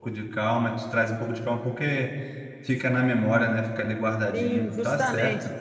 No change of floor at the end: No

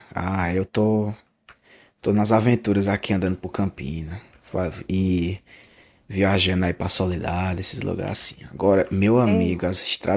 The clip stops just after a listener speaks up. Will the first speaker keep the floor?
Yes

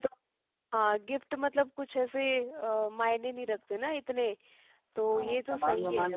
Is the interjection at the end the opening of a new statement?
Yes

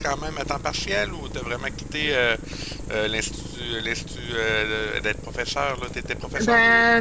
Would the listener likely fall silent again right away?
No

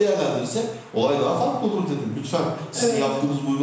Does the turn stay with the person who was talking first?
Yes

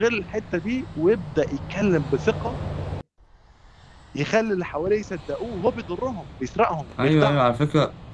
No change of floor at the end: No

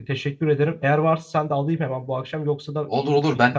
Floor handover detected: Yes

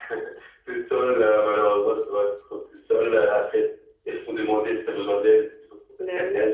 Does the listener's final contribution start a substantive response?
No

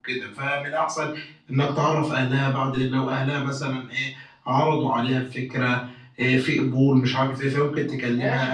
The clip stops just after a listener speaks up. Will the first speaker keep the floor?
No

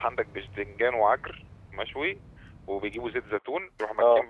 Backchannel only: Yes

